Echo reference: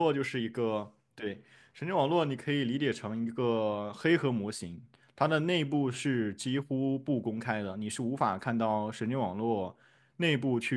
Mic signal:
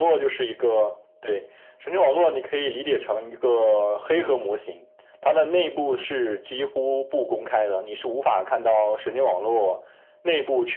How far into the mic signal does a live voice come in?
none

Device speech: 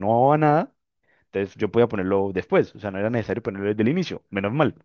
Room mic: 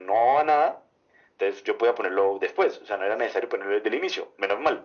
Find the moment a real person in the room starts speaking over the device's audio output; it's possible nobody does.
none

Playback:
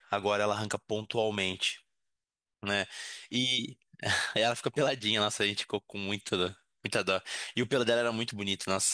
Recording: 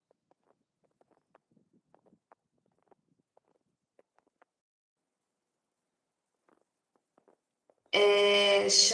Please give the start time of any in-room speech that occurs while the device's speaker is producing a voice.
8 s

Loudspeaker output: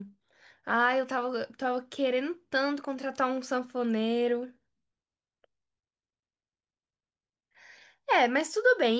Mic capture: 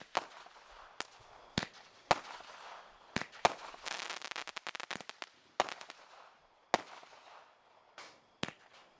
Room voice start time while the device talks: none

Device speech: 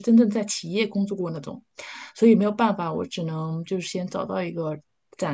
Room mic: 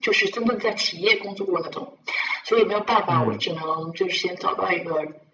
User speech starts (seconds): 3 s

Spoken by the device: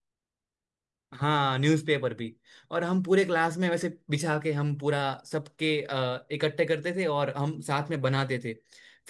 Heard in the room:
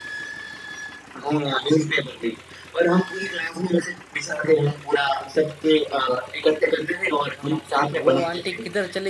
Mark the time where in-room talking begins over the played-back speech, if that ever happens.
8 s

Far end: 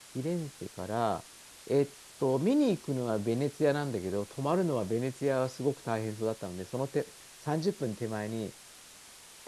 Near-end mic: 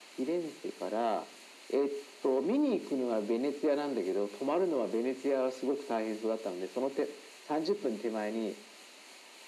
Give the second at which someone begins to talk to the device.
none

